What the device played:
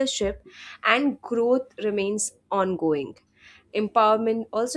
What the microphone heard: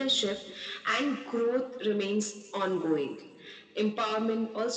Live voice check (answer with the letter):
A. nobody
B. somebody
A